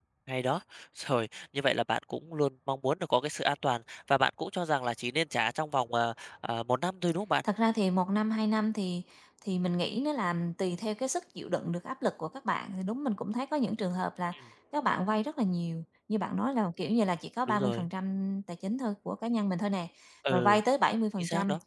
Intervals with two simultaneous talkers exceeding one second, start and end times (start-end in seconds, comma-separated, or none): none